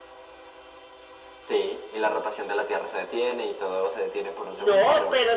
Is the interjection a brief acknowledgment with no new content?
No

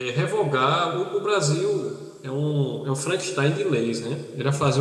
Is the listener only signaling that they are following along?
Yes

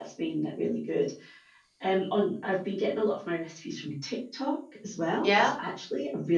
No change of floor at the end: Yes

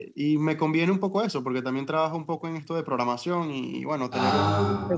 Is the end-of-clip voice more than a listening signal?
No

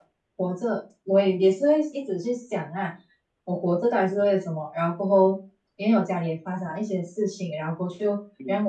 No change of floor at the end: Yes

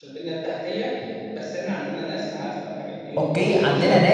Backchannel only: No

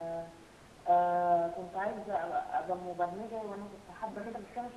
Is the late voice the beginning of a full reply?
Yes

